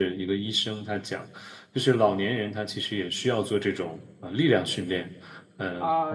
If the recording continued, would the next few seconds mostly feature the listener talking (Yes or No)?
Yes